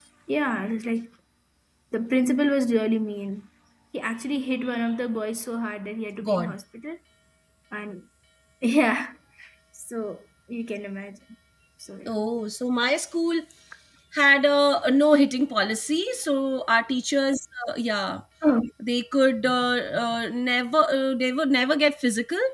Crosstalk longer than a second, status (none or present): none